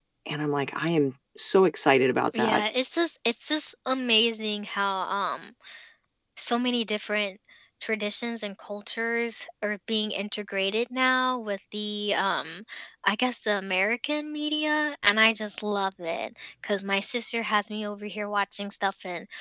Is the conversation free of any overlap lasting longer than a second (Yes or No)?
Yes